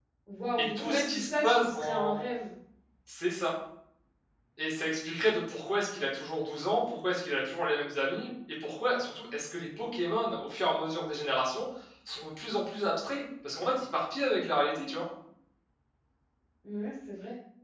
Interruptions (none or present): present